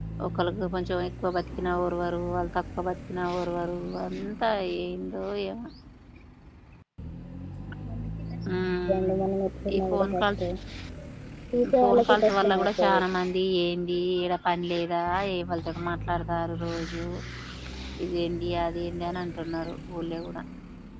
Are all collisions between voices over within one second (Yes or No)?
No